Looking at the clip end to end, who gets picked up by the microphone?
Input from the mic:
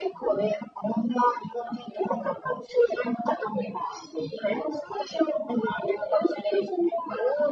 echo only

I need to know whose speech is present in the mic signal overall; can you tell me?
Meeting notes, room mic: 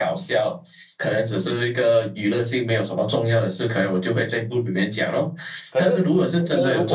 both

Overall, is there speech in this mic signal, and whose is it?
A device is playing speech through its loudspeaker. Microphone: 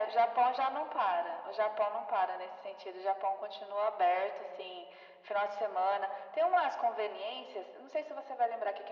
echo only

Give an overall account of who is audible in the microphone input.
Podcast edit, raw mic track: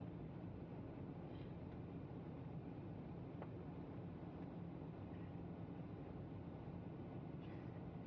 neither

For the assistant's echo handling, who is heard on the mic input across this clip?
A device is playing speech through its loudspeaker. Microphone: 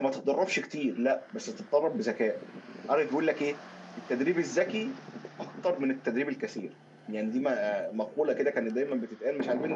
echo only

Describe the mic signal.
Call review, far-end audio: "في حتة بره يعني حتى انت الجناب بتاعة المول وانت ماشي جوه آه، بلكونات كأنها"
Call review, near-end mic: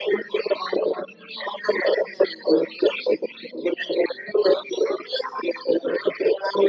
echo only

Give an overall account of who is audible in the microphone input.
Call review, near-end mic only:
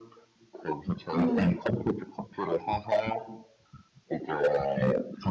both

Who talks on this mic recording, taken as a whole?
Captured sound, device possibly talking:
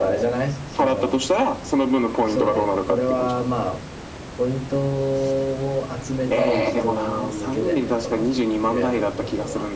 both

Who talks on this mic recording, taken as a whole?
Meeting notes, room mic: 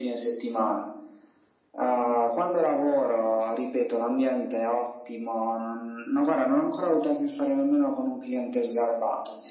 echo only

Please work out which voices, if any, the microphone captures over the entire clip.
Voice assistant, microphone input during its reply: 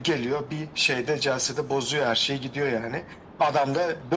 echo only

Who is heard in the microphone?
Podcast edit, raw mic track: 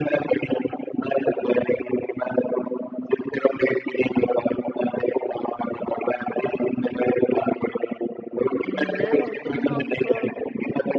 both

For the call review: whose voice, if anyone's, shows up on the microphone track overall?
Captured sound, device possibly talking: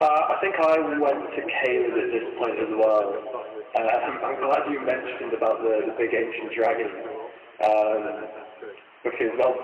both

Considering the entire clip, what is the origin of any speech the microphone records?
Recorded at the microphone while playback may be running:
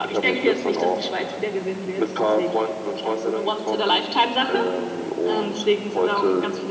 echo only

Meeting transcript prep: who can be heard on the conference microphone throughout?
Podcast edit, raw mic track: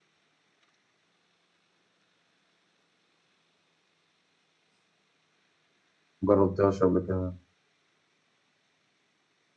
user only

